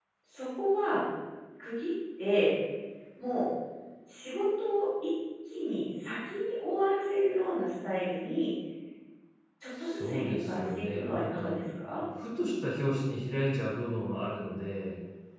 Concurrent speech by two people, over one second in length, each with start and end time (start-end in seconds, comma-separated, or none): 9.8-11.5